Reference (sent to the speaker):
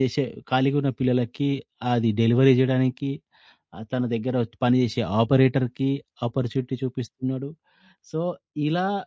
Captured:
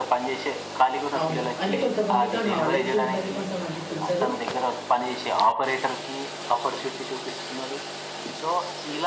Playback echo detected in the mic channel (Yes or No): Yes